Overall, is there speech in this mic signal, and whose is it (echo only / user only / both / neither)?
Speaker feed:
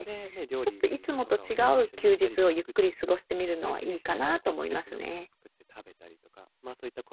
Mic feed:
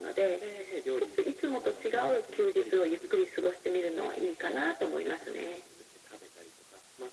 echo only